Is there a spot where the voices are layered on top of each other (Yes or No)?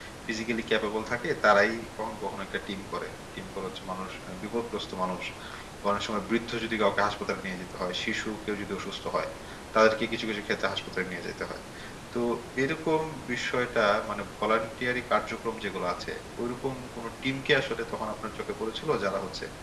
No